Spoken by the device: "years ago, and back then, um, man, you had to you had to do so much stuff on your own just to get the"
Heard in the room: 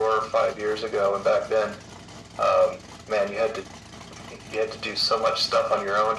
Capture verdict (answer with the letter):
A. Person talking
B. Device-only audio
B